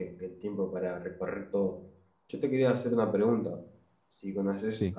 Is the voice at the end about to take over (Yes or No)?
No